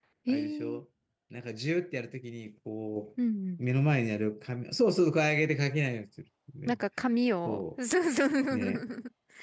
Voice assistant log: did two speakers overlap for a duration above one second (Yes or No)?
No